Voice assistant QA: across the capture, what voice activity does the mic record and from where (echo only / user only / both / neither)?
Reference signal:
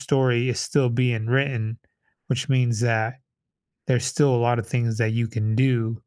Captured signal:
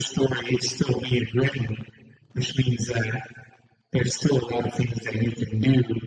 echo only